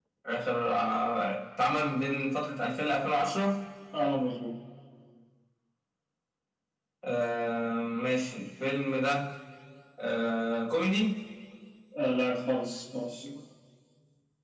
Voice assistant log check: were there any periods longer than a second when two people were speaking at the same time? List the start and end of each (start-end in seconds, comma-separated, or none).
none